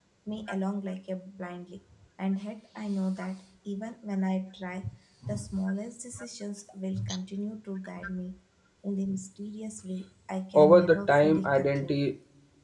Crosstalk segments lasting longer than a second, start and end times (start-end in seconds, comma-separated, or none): 10.5-12.0